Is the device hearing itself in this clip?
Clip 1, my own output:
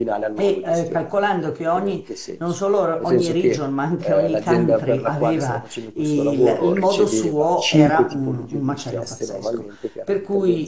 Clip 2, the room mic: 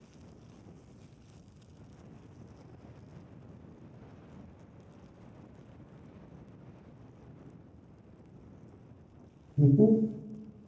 No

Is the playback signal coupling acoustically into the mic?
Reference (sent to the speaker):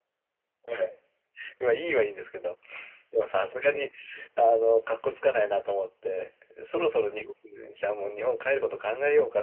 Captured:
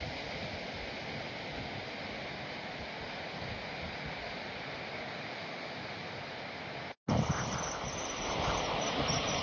No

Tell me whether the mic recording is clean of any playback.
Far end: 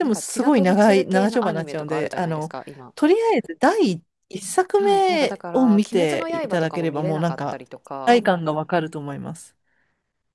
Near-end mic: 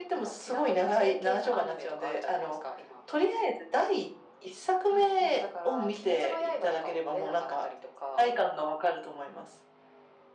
No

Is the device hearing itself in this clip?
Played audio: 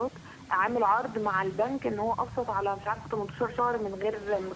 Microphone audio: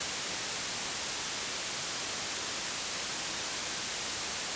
No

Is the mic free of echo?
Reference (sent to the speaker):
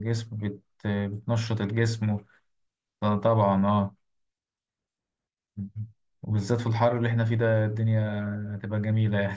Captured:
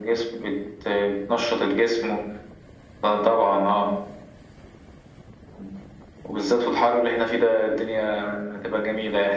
No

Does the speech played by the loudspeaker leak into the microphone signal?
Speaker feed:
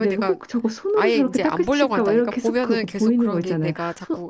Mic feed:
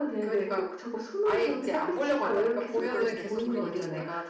Yes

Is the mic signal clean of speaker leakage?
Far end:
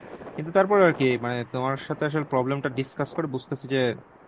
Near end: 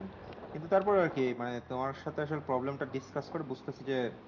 No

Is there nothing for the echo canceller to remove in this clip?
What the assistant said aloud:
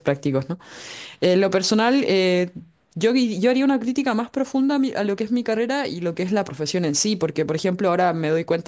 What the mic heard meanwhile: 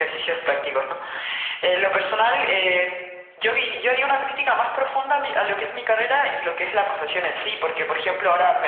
No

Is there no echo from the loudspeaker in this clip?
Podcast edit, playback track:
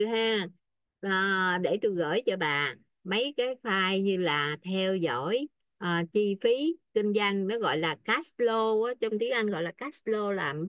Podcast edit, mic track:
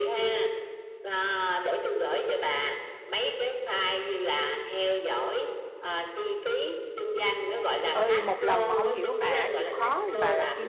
No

